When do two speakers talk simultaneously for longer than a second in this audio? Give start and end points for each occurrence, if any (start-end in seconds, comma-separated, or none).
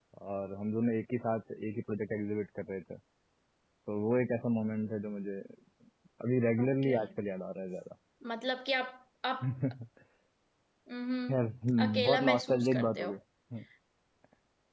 11.9-13.1